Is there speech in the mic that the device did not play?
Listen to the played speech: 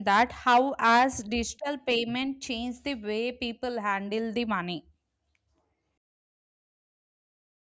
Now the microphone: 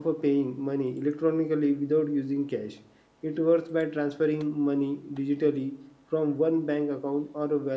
Yes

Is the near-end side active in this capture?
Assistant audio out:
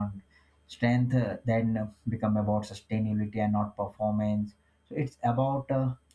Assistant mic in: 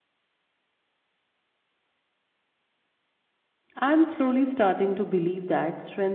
Yes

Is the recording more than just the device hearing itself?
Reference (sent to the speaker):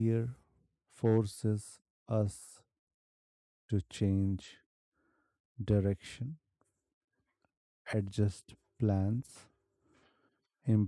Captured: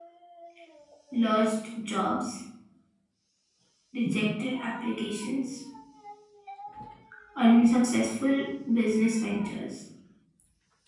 Yes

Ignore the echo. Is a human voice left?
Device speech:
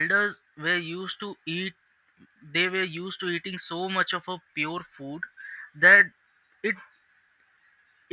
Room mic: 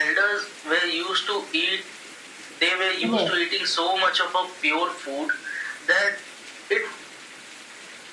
Yes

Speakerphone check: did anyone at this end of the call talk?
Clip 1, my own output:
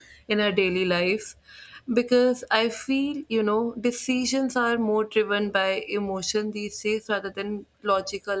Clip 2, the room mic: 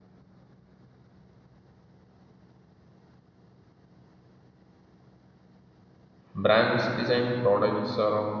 Yes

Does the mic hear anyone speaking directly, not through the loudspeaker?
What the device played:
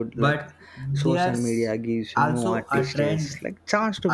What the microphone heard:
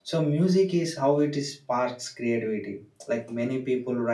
Yes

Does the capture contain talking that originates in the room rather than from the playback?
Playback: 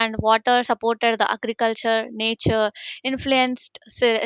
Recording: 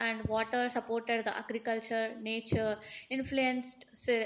No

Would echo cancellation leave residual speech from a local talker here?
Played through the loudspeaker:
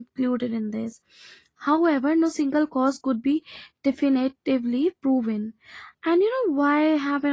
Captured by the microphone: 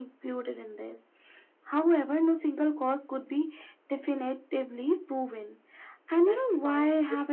Yes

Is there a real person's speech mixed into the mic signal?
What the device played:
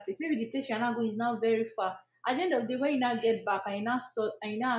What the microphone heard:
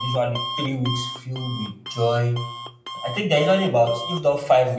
Yes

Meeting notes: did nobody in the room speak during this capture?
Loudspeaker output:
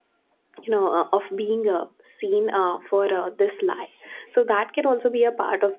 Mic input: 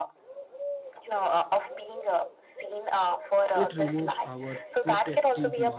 No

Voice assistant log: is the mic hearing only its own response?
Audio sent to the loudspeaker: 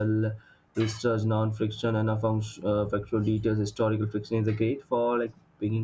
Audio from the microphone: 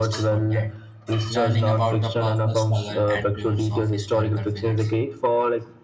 No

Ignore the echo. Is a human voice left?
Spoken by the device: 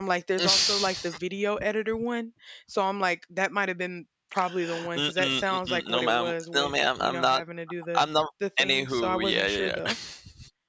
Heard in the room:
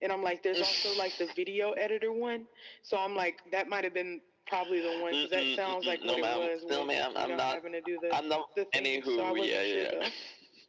No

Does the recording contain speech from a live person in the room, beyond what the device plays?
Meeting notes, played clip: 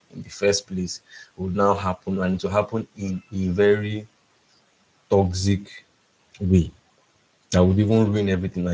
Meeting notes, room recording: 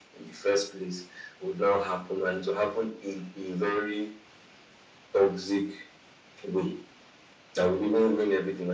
No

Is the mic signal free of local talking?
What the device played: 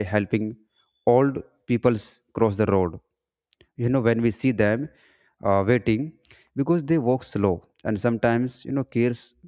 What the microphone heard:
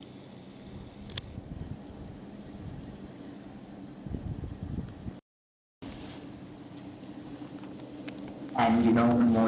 No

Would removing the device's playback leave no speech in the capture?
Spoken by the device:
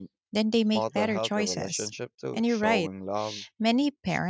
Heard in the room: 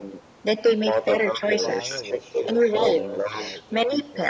No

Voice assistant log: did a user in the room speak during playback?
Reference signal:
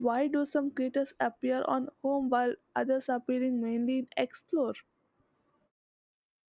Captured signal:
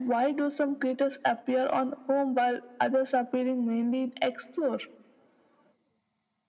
No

